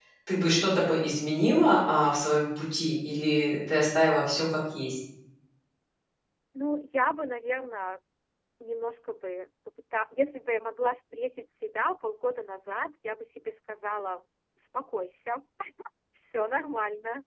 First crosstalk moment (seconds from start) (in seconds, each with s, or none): none